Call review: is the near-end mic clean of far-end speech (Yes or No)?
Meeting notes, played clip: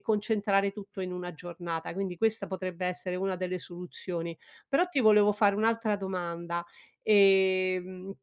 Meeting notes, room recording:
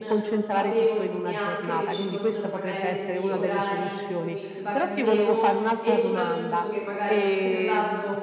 No